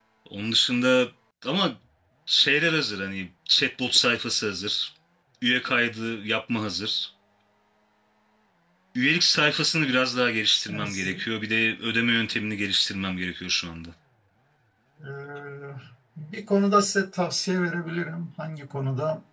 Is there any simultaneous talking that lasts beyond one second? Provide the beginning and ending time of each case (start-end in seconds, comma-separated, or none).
none